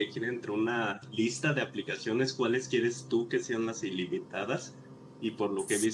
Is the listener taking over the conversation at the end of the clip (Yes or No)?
No